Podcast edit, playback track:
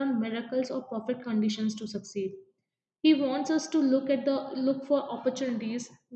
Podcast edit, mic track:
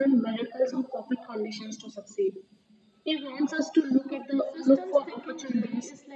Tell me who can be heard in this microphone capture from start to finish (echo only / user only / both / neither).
both